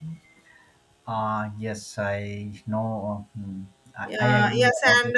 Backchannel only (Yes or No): No